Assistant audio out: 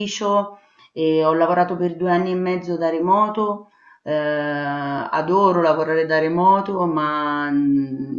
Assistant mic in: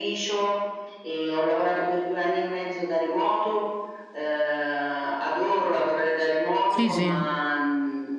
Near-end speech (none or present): present